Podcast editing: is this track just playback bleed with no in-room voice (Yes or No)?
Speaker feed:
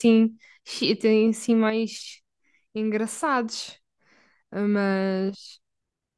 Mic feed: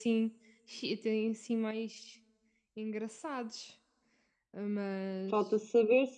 No